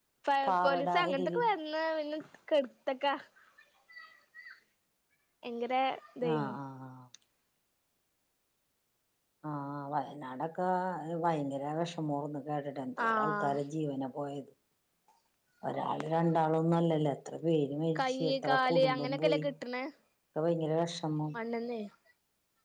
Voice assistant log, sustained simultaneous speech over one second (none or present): present